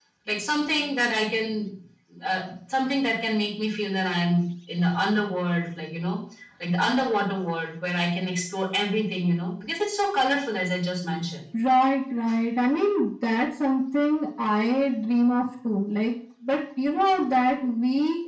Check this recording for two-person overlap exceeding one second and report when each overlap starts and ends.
none

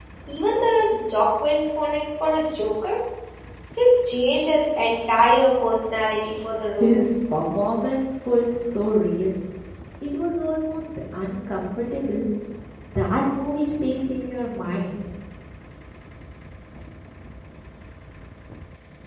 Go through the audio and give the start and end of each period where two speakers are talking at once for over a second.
none

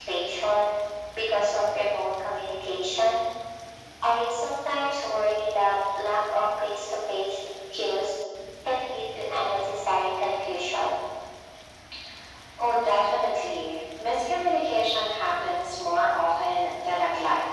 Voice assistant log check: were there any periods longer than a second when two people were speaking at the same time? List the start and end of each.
none

